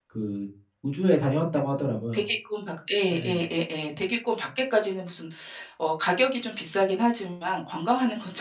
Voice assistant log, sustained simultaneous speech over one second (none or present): none